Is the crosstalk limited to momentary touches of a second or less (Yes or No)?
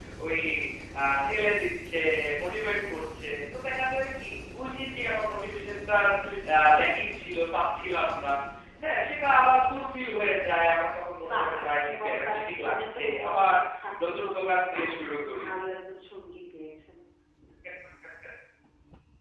No